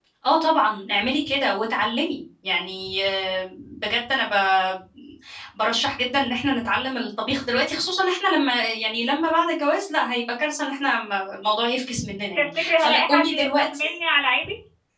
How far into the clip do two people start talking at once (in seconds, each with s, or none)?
12.3 s